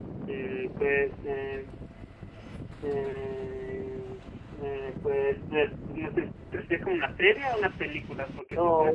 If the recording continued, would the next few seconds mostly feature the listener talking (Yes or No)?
Yes